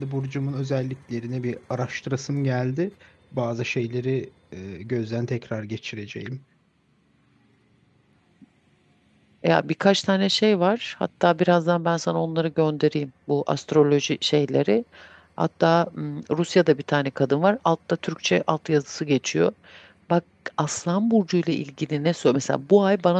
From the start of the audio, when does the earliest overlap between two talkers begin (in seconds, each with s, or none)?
none